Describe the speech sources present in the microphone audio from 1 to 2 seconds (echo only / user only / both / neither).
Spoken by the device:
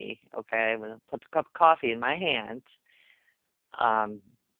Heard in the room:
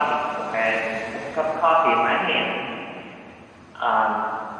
echo only